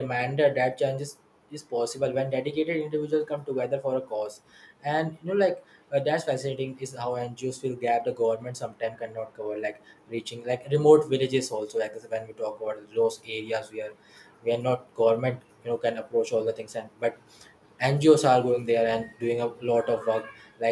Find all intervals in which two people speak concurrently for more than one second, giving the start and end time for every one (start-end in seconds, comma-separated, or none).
none